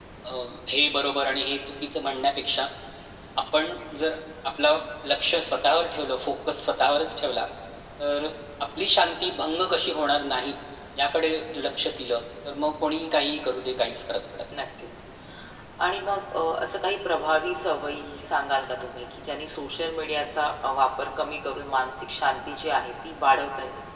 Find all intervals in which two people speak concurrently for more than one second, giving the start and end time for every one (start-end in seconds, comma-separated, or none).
none